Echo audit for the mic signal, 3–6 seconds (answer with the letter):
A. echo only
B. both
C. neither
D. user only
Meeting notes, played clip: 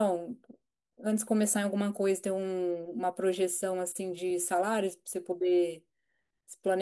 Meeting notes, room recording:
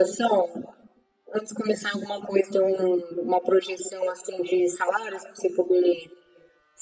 A